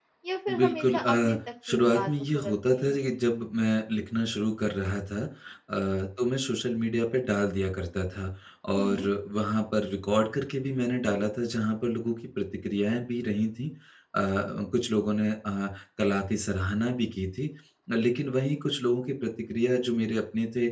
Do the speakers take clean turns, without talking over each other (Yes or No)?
No